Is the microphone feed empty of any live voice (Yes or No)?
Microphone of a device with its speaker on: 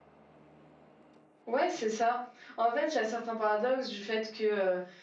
No